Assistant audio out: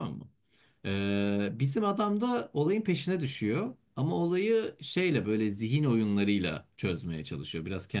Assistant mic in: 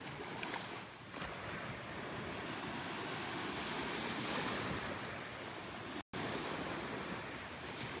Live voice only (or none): none